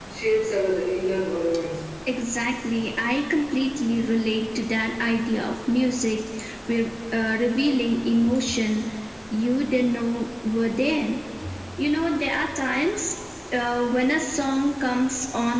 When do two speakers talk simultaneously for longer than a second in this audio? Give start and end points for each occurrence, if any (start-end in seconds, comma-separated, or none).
none